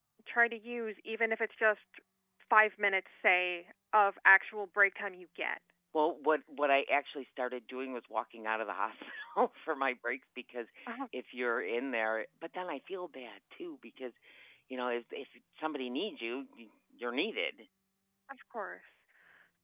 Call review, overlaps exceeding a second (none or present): none